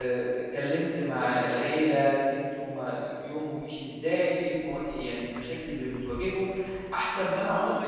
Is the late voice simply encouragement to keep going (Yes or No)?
No